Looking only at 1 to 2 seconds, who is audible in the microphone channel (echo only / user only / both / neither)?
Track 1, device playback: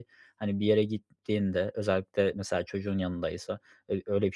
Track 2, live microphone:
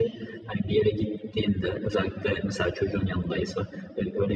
echo only